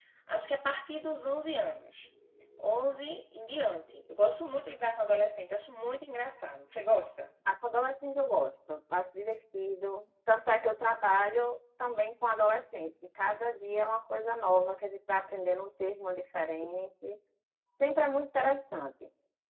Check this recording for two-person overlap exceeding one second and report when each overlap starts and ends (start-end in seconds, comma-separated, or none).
none